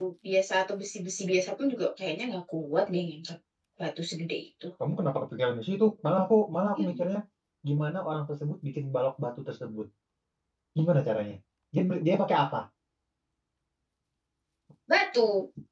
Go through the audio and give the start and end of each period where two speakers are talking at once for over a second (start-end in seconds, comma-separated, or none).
none